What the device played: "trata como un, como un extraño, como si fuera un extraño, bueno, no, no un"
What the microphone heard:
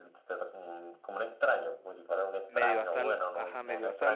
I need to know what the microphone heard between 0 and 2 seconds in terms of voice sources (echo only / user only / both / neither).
echo only